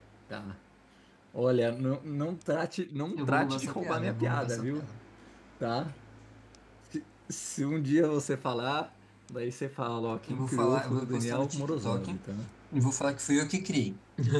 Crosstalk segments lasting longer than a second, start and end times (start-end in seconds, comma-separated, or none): 3.1-4.9, 10.3-12.2